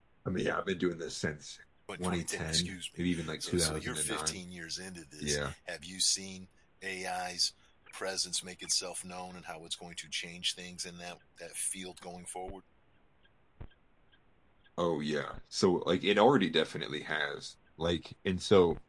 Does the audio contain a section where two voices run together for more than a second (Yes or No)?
Yes